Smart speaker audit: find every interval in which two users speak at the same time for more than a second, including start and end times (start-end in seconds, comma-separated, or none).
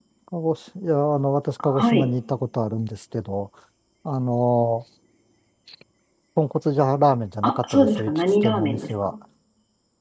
7.4-9.1